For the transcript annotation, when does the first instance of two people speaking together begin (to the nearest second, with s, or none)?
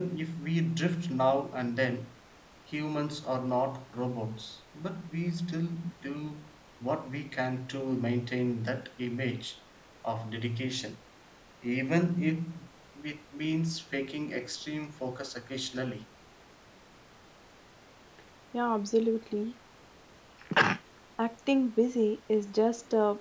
none